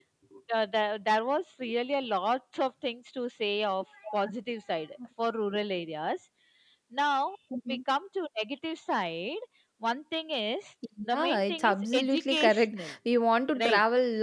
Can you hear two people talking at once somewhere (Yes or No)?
Yes